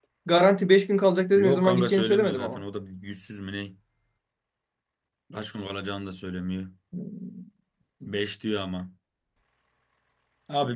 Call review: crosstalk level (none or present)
present